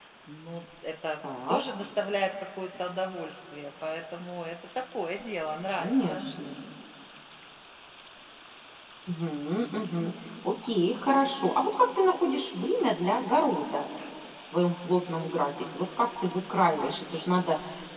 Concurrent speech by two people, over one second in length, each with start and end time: none

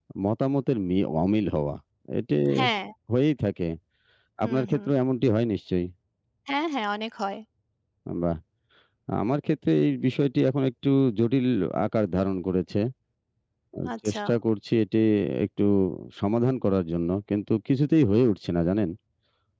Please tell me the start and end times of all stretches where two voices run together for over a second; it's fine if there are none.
none

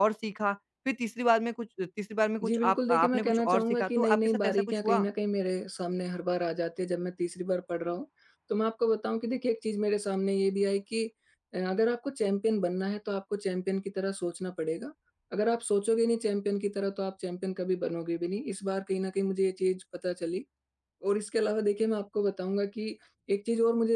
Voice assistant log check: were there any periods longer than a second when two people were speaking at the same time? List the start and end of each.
2.4-5.1

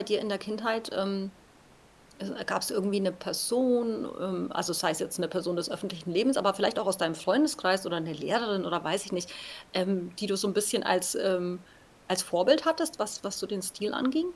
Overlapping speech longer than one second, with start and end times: none

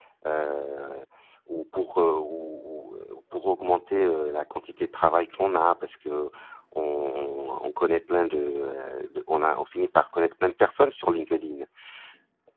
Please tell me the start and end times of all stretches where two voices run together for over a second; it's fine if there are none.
none

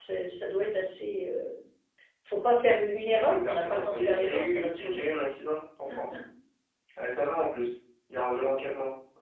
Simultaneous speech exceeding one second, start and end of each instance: 3.3-5.1

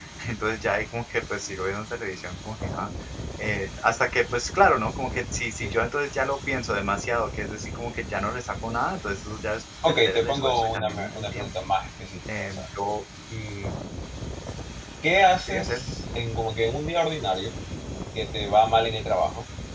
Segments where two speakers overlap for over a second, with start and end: 9.9-11.5

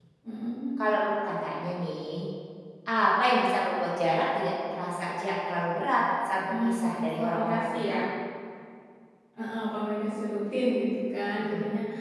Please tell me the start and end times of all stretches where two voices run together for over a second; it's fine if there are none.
6.5-8.0

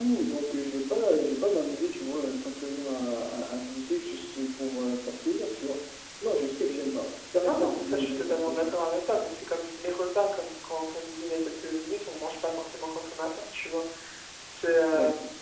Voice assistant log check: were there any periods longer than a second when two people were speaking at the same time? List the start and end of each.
7.4-8.8

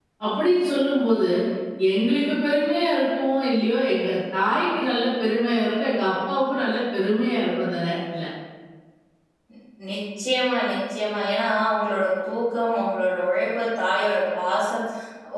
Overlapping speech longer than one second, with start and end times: none

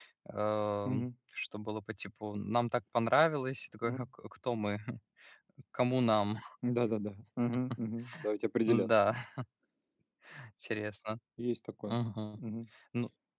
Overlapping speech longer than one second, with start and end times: none

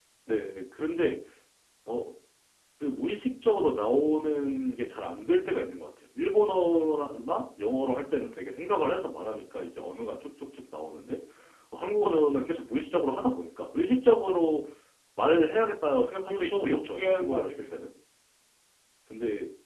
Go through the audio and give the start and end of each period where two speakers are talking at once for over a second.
16.3-17.8

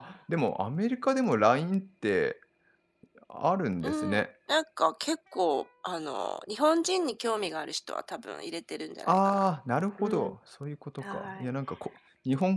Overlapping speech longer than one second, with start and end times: none

